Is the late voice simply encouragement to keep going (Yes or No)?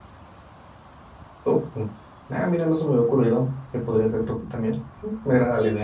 No